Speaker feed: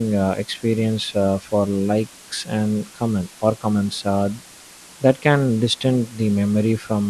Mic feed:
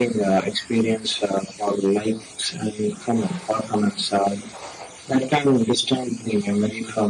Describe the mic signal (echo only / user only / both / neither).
echo only